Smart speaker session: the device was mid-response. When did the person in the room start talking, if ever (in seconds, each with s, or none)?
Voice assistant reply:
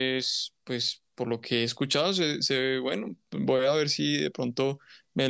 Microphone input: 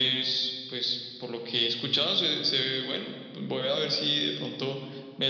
none